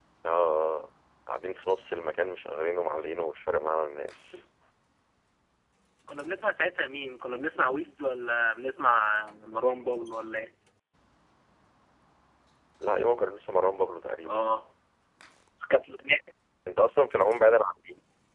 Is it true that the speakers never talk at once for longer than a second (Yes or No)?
Yes